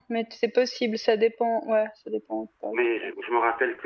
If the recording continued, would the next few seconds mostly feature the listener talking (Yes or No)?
Yes